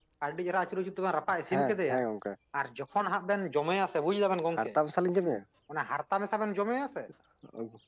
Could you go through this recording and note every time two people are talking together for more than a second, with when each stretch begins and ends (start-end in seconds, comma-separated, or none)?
none